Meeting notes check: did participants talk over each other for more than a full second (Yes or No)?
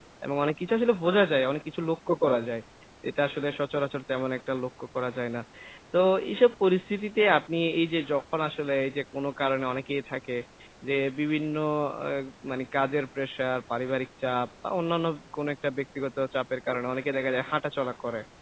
No